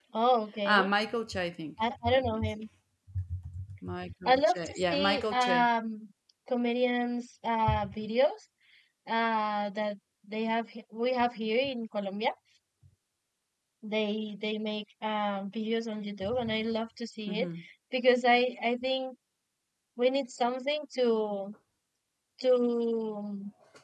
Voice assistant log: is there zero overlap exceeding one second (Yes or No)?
No